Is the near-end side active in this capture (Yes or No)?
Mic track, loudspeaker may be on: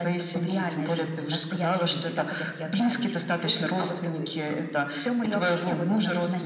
Yes